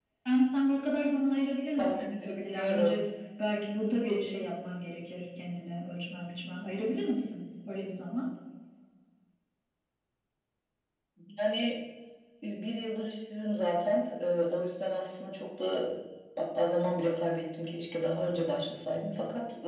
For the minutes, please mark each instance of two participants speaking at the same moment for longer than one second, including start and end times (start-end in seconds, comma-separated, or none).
1.8-3.0